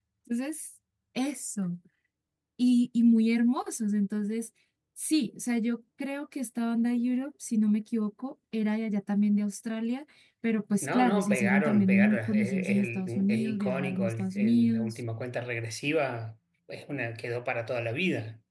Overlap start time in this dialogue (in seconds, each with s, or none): 10.8 s